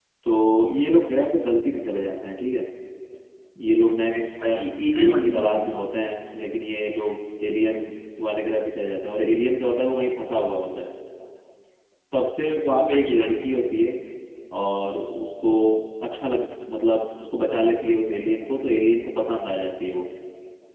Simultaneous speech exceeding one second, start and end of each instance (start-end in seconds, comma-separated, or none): 4.4-5.7